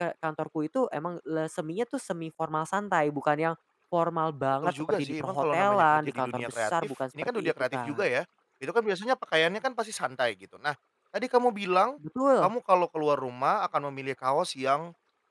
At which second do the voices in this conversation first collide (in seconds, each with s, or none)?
4.6 s